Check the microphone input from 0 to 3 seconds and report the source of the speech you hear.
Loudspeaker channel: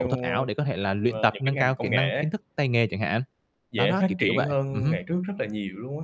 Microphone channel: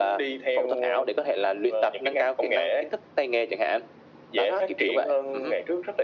echo only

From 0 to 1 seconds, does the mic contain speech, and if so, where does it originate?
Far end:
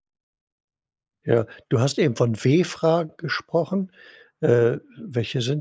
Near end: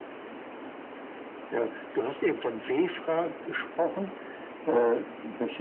neither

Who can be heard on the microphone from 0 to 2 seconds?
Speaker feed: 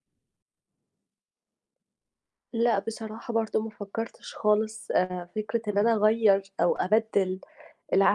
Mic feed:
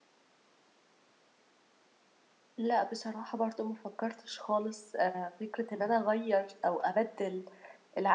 neither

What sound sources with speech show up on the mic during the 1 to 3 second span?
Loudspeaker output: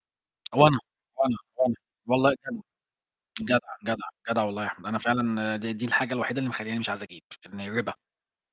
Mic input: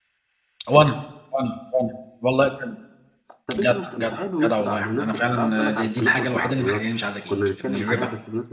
echo only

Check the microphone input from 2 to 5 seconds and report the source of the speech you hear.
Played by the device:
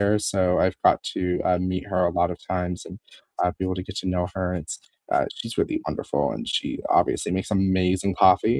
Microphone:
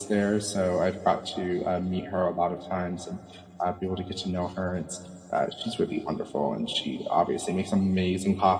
echo only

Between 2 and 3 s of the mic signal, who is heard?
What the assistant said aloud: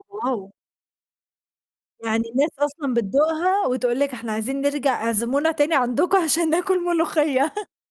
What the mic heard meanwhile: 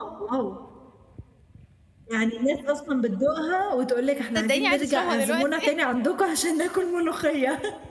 echo only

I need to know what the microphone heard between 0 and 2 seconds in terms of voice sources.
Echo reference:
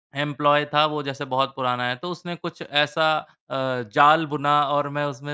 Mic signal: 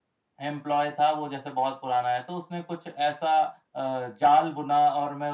echo only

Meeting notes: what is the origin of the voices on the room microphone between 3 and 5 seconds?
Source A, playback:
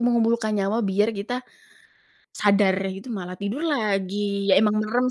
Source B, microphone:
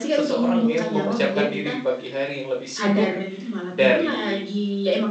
both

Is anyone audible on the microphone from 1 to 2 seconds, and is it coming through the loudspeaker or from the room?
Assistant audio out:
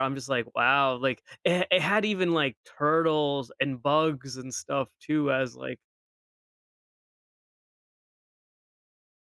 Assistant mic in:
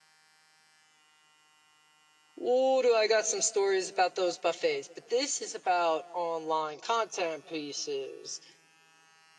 neither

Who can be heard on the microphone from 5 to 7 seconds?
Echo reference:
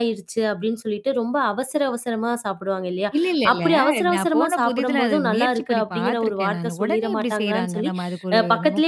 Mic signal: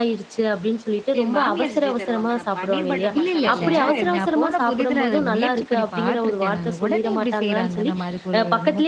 echo only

